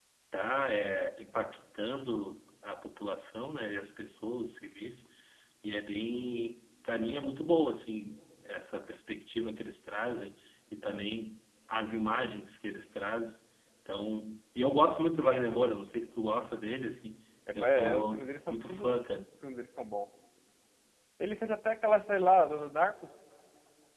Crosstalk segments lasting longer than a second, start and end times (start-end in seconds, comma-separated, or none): 17.6-19.3